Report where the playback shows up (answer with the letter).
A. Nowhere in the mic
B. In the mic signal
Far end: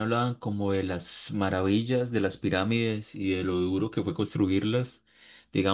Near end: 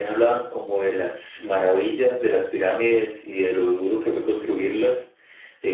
B